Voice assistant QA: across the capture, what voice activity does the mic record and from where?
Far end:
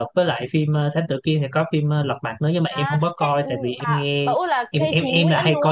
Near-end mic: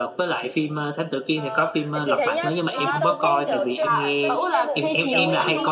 both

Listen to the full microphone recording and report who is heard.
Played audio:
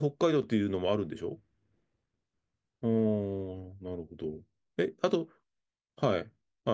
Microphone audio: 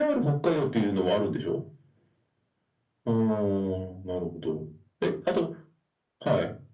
echo only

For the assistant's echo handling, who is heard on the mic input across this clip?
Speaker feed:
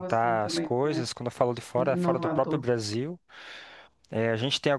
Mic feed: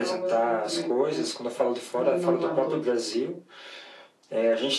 echo only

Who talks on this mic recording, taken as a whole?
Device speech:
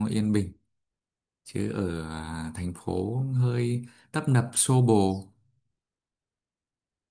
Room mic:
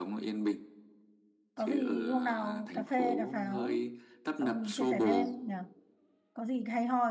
both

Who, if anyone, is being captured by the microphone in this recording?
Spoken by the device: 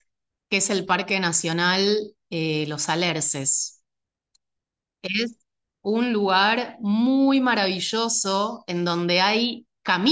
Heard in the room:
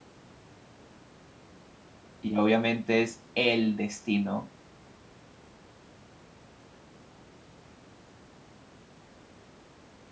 user only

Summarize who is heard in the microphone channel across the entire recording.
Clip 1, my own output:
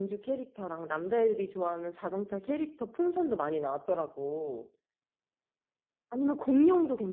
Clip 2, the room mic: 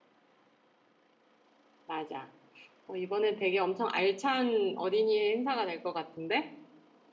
user only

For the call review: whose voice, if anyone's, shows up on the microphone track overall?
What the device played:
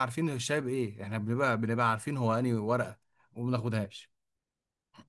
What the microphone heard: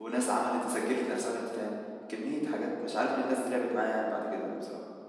user only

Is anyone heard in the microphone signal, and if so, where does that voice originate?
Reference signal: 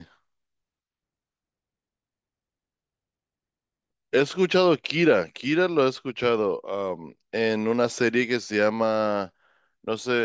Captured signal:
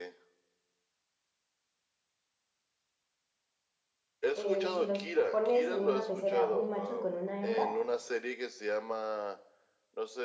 both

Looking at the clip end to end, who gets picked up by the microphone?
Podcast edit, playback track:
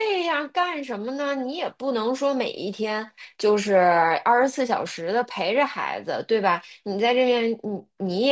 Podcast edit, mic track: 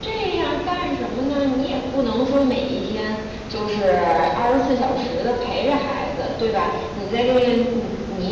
echo only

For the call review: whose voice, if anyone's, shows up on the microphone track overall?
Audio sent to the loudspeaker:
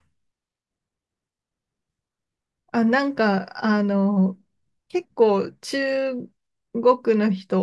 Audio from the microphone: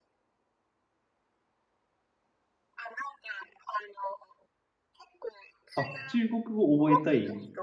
both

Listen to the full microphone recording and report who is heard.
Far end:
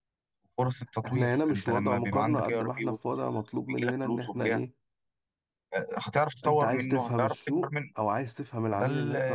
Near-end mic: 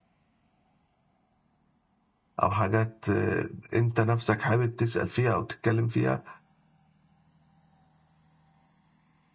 user only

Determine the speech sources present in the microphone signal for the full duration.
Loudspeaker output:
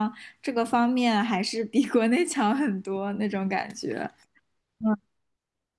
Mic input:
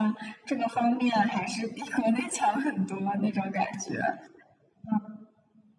echo only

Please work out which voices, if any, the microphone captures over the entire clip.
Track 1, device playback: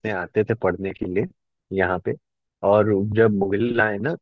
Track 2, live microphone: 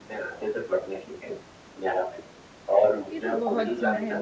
both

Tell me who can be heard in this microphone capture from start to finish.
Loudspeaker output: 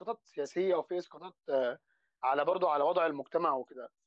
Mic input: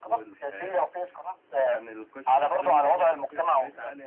both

